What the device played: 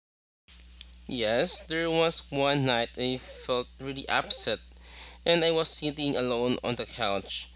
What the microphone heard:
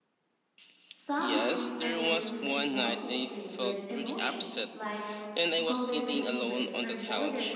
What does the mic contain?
both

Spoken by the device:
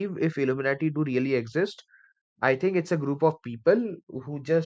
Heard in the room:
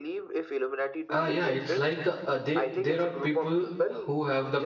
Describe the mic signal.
both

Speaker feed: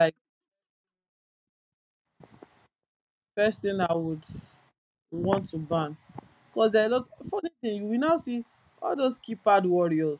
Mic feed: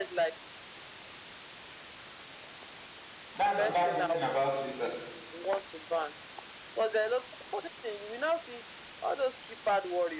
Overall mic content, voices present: both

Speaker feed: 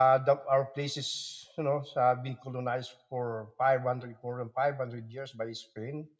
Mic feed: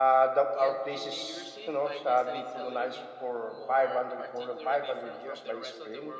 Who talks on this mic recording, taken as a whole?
both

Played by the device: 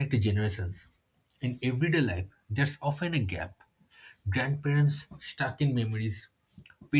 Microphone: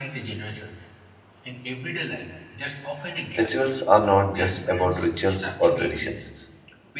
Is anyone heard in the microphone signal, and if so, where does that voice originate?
both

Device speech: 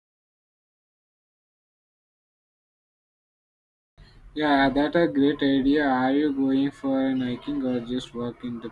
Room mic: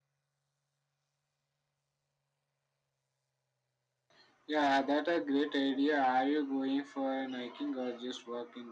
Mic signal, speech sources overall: echo only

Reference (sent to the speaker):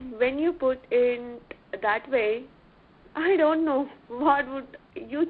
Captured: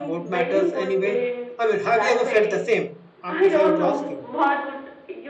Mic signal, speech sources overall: both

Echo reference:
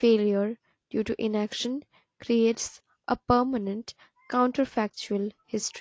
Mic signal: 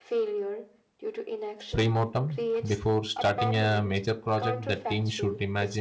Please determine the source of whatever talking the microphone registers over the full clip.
both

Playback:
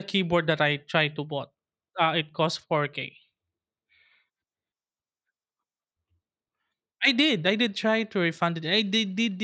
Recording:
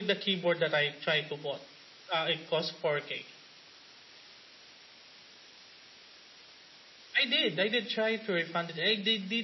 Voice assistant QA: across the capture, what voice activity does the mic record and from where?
echo only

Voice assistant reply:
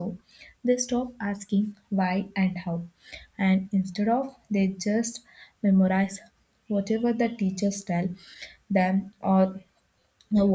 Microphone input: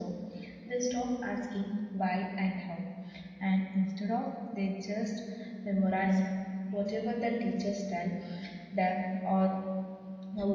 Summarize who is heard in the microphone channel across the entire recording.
echo only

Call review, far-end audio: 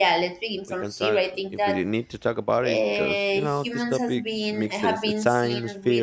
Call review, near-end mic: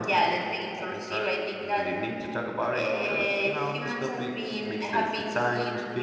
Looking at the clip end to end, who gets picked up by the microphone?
echo only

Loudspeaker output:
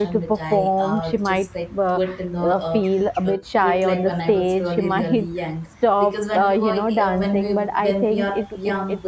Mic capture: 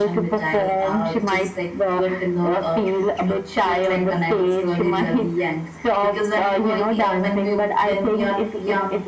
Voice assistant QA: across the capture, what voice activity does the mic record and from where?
echo only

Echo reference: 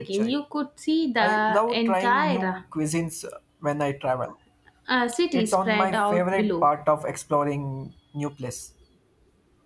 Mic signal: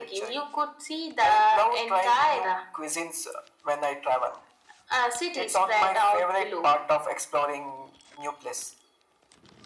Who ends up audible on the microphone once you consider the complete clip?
echo only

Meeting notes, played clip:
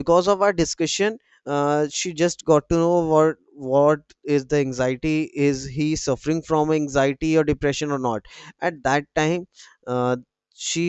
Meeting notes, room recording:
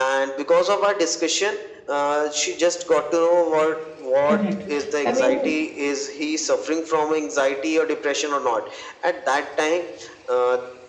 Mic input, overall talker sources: both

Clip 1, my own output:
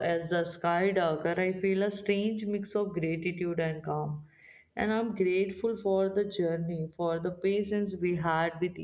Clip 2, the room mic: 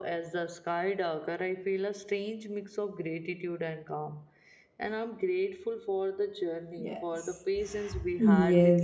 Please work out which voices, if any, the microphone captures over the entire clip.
both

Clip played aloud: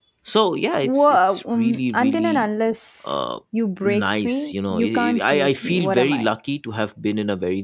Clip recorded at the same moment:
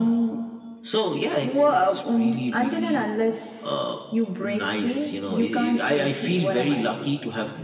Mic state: echo only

